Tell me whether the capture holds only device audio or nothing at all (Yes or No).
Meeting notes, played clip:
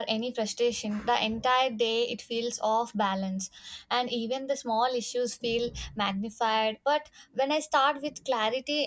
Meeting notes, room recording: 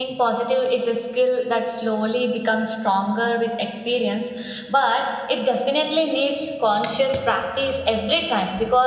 No